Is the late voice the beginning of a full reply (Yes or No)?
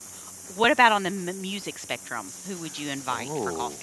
Yes